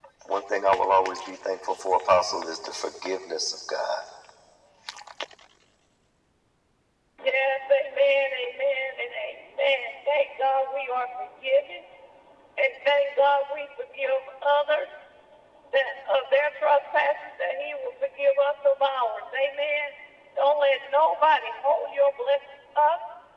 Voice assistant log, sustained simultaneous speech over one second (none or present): none